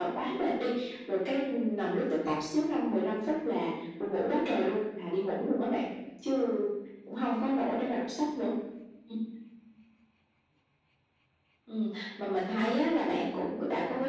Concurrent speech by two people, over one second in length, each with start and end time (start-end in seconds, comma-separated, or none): none